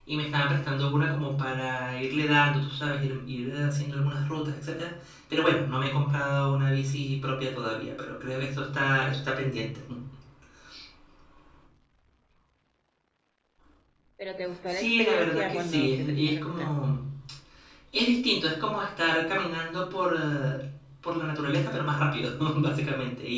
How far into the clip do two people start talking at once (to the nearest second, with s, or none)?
15 s